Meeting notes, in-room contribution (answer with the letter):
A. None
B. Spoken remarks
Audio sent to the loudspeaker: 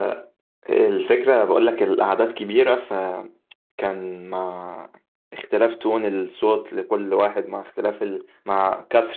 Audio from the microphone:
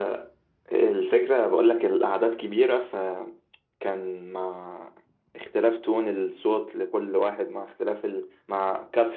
A